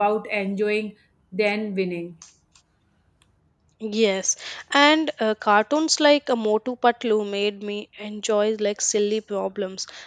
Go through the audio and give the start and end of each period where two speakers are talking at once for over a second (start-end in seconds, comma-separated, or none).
none